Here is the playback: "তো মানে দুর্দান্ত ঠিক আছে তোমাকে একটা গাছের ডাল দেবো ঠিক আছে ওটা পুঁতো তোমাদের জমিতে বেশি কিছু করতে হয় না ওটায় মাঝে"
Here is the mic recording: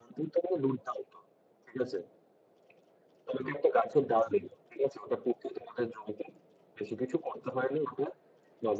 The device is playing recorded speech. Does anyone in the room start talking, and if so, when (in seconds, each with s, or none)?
none